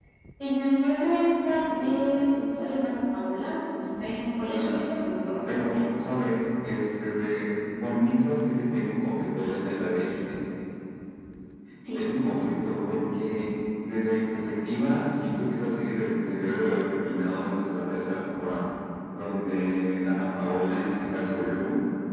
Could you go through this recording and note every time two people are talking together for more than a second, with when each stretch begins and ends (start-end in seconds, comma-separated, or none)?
none